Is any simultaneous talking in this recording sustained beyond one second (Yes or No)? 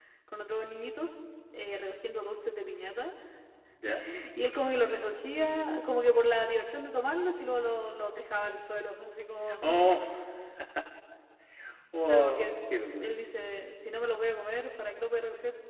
No